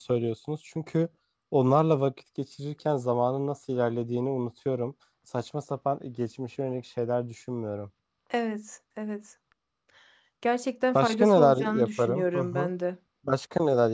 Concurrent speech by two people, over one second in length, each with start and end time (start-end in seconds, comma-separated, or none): 10.9-12.7